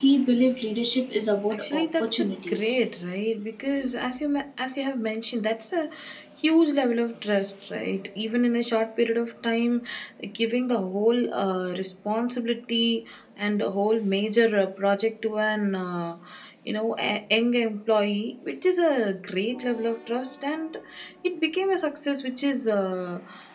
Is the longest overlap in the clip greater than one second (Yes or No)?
Yes